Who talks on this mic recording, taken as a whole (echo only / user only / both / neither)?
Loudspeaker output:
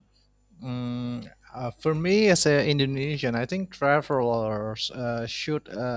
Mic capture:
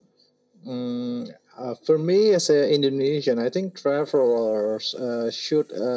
echo only